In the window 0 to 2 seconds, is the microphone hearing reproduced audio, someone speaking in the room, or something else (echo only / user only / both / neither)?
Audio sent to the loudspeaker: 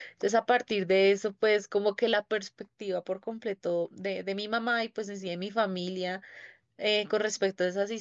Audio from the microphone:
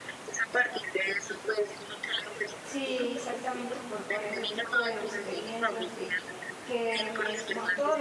echo only